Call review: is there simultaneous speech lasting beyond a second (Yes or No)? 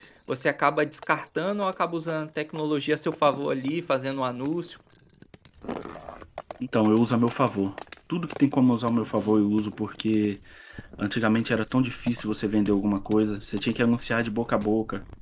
No